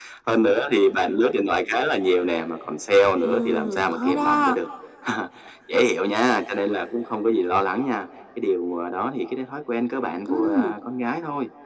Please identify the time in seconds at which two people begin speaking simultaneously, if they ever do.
3.2 s

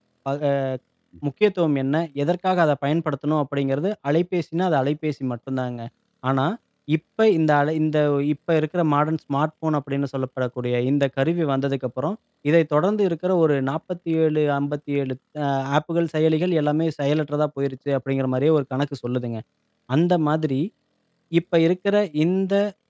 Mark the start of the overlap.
none

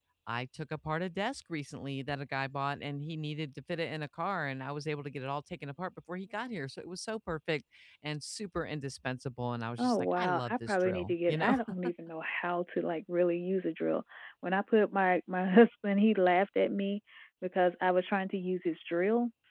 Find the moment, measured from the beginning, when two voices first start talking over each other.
9.8 s

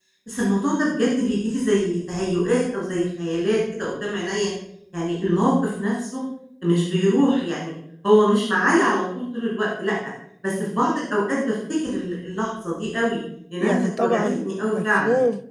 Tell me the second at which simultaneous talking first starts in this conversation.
13.6 s

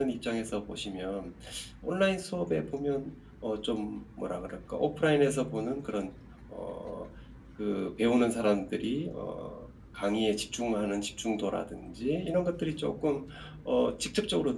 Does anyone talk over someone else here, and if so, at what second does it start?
none

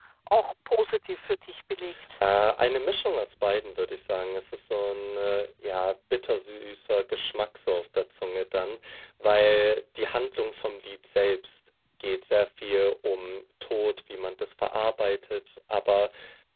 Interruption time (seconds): none

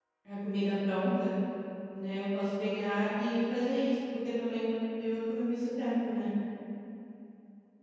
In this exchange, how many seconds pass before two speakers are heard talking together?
none

